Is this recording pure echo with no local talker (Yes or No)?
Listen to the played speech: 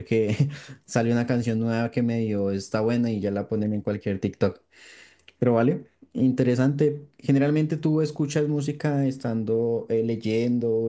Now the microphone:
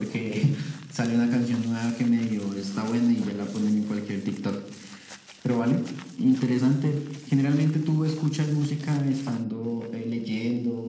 Yes